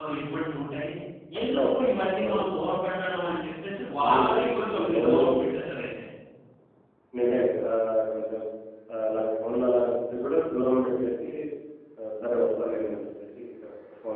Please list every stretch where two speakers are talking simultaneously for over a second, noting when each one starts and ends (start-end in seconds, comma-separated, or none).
4.0-5.3